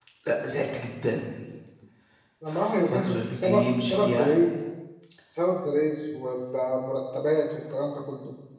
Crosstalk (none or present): present